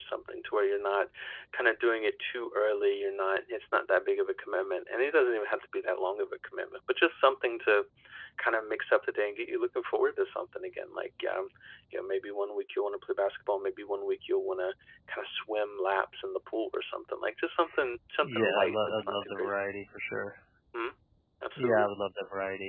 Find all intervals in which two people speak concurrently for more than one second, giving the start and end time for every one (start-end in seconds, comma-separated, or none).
18.2-19.5